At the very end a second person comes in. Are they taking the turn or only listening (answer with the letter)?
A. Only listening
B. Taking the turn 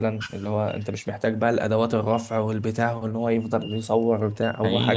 B